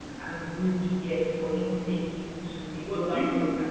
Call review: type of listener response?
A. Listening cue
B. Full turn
B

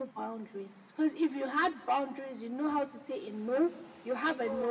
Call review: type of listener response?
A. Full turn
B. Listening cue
B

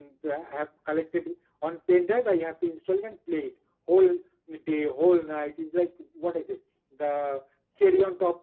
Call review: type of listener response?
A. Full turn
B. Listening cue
B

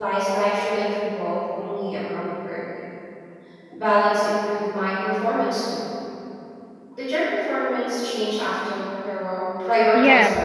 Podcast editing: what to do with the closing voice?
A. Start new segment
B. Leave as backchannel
A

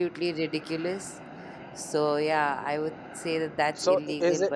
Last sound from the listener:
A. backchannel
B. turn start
B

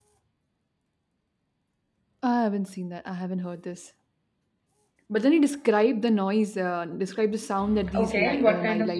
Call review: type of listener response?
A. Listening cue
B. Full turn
B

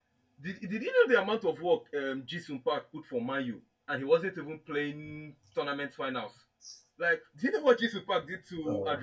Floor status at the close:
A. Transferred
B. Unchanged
B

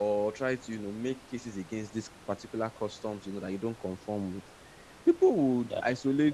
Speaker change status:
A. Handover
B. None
B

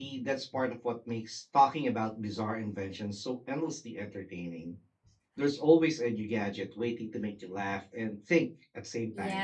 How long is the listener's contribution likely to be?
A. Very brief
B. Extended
B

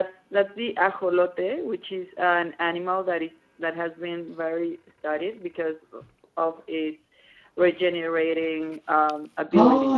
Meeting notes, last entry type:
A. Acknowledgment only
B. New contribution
B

